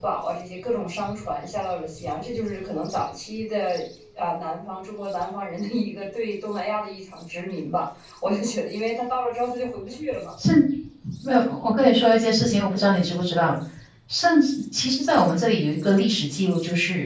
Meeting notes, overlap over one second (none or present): none